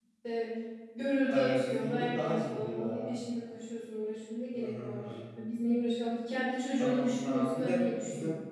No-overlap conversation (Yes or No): No